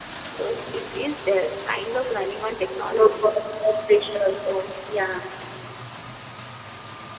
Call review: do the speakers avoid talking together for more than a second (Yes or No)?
Yes